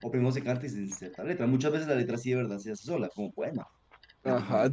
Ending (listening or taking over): taking over